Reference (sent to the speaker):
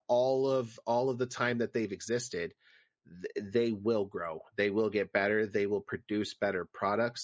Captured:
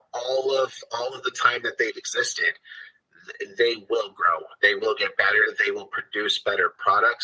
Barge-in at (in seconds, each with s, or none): none